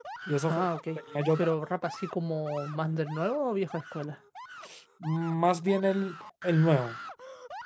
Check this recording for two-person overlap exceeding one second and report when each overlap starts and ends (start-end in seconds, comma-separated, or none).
none